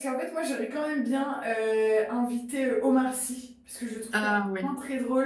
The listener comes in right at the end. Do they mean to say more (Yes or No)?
No